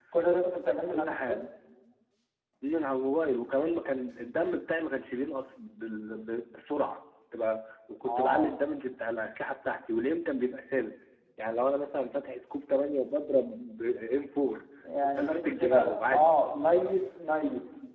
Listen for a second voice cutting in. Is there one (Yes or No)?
Yes